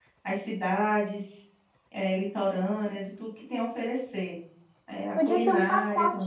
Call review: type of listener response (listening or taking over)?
taking over